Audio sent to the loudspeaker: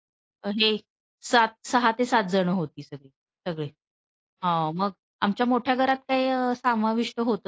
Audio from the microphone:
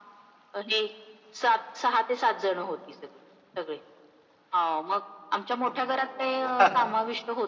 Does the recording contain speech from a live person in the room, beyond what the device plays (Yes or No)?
Yes